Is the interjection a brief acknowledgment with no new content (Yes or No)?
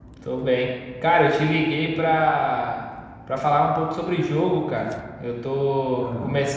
Yes